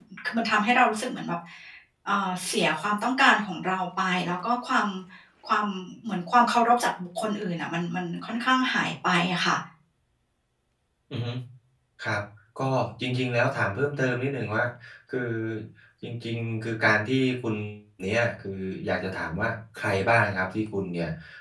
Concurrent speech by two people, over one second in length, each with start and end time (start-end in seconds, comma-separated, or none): none